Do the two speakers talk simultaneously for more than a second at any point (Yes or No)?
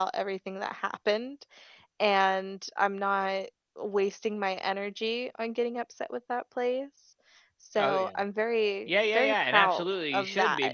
Yes